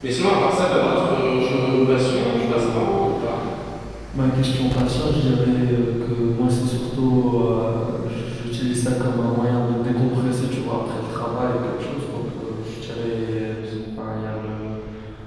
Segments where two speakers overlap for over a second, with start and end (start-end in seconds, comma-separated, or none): 0.8-2.9